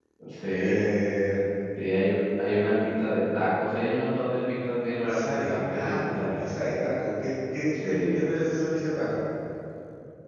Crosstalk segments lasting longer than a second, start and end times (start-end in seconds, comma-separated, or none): 5.0-6.5